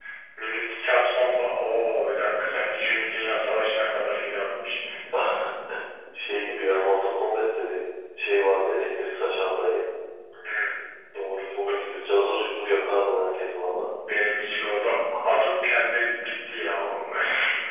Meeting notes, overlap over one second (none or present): none